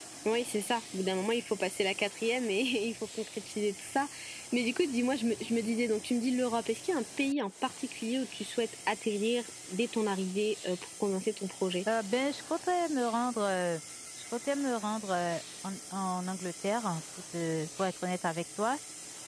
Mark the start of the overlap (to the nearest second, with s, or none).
none